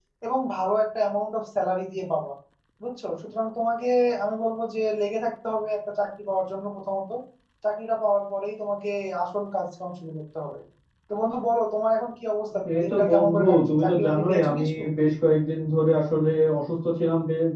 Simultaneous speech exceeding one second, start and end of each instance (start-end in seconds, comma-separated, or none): 12.8-14.8